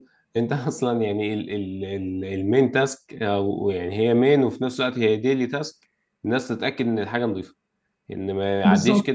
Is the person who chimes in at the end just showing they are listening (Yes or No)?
Yes